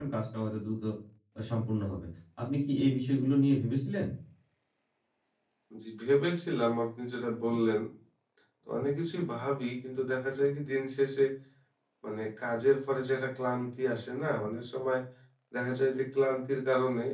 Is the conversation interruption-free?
Yes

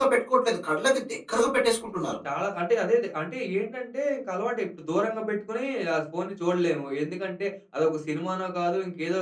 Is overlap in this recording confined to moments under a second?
Yes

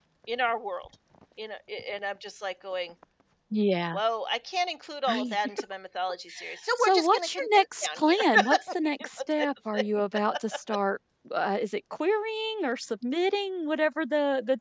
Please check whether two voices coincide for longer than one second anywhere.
Yes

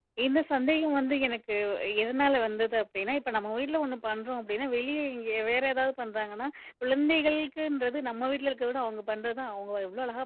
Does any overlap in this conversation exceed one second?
No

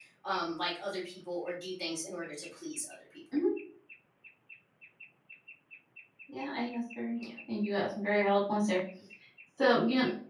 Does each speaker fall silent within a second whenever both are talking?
Yes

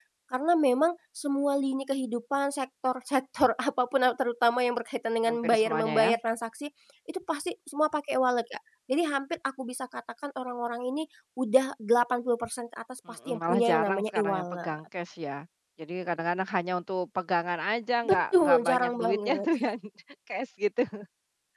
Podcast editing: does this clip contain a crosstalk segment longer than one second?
Yes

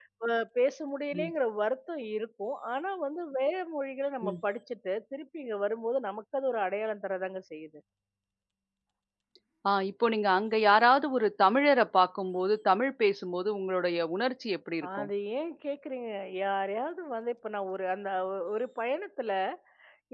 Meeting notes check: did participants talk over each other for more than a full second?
No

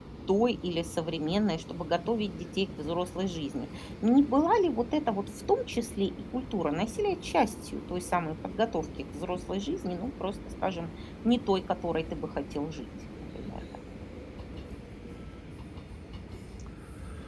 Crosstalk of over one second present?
No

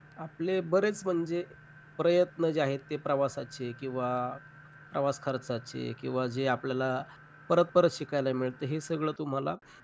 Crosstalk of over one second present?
No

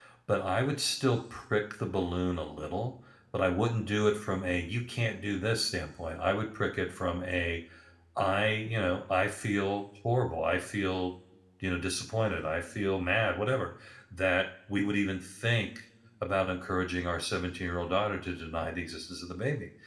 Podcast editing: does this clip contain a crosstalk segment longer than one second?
No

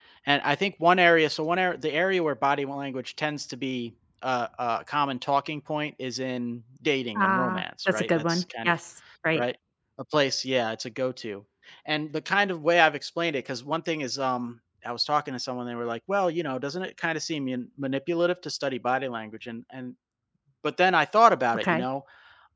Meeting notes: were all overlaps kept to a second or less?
No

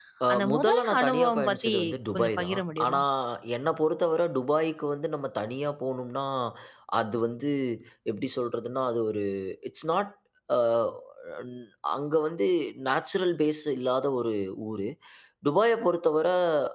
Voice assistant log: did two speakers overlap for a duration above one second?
Yes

